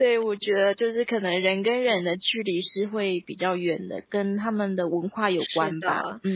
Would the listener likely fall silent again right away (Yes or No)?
No